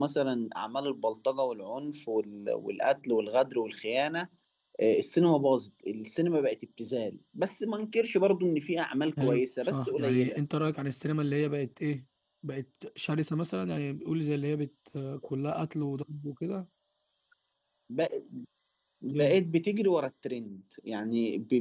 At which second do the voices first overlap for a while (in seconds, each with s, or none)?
9.2 s